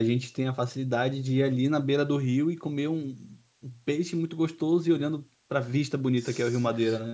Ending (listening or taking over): taking over